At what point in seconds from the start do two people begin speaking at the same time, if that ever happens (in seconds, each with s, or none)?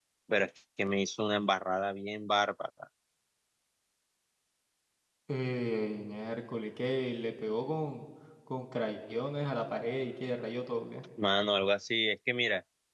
none